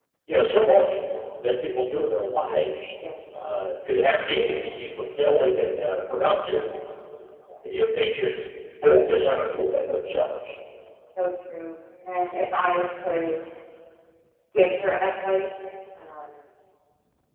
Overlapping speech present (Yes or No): No